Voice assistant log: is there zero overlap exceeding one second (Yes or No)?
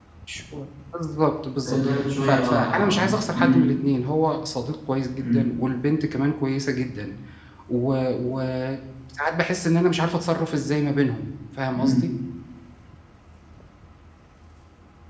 No